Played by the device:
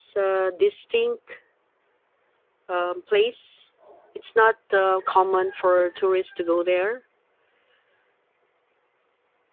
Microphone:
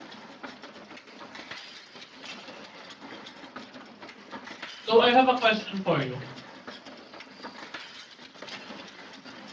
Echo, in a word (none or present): none